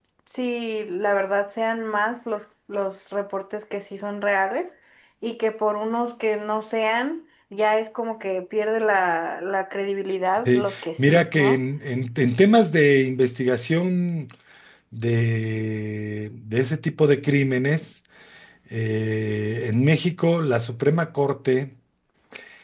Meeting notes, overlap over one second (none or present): present